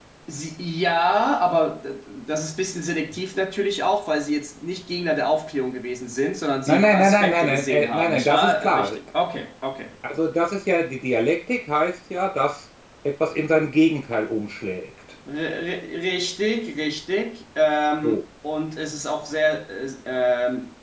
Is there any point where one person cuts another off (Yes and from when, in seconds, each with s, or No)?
Yes, from 6.7 s